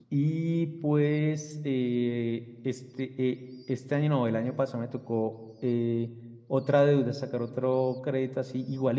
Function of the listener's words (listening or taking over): listening